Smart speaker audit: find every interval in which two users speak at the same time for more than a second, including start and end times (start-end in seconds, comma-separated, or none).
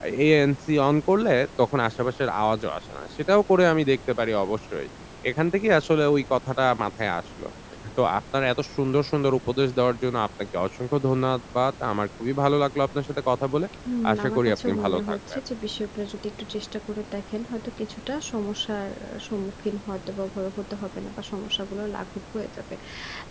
14.1-15.4